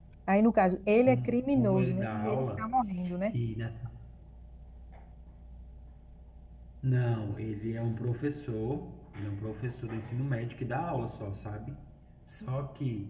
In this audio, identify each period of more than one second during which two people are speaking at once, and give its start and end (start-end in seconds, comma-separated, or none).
0.9-2.6